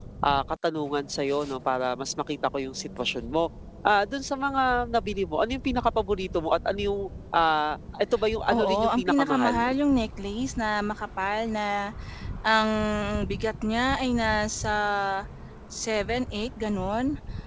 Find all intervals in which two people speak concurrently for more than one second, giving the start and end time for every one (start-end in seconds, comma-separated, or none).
8.5-9.7